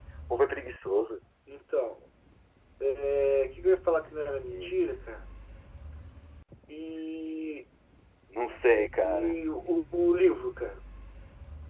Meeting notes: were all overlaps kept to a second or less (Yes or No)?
Yes